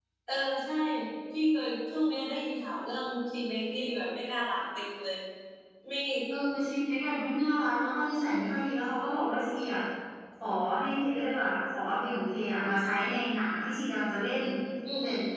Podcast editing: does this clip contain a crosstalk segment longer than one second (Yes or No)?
No